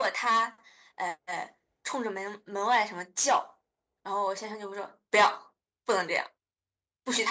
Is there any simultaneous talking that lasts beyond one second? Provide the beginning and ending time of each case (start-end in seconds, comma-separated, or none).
none